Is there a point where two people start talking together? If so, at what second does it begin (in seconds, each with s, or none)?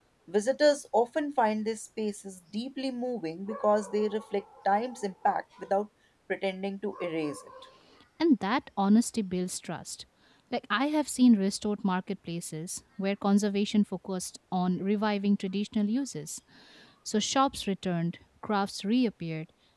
none